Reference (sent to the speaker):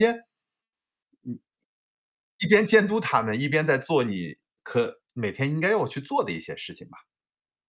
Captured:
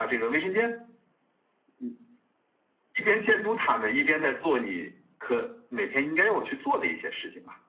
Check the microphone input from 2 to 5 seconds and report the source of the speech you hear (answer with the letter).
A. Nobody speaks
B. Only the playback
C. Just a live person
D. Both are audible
B